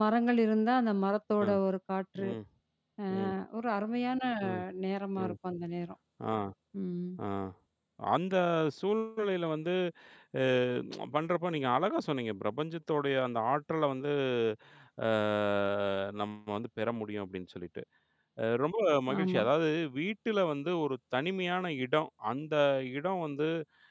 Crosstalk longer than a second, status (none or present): none